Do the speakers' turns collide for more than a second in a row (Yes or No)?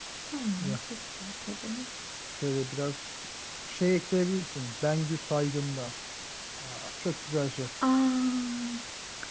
No